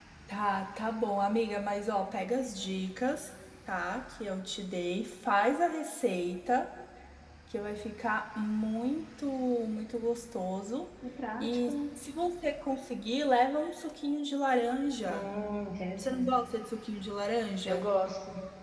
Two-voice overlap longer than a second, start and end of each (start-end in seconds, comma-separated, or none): none